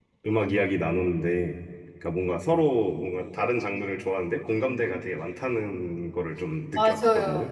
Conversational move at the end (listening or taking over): taking over